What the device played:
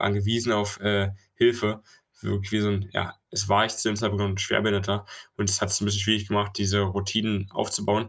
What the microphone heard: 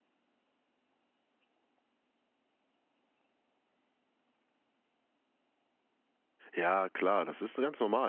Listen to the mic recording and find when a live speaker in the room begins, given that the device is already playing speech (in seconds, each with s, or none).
6.5 s